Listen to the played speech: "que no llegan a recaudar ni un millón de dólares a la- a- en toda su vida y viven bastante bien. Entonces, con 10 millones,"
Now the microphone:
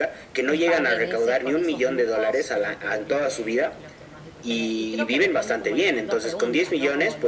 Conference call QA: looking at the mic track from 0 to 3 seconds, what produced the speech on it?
both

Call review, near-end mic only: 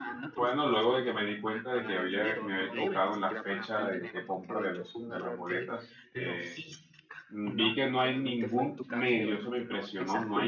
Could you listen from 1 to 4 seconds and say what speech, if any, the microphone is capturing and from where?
both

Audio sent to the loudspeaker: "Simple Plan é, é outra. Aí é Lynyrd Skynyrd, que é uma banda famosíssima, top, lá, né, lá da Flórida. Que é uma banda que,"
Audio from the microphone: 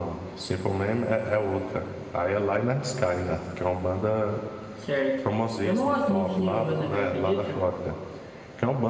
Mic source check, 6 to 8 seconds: both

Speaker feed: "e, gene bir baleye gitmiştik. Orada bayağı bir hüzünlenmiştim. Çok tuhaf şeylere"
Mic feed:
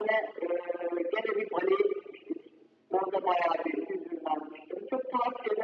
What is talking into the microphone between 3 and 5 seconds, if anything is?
echo only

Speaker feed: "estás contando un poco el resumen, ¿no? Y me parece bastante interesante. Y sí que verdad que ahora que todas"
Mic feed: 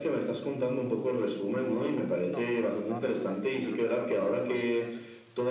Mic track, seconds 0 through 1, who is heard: echo only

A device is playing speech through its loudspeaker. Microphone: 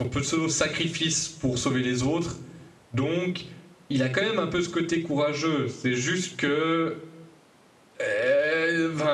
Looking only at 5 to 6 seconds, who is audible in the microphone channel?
user only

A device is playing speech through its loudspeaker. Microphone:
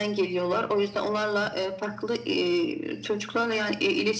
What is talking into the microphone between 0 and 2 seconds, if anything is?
echo only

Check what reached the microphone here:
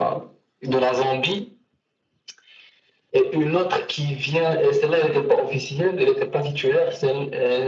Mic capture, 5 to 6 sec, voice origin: echo only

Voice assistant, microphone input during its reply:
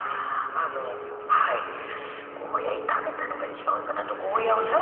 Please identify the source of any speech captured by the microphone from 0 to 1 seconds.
echo only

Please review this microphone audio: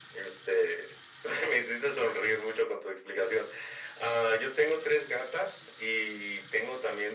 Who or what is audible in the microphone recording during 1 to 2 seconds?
echo only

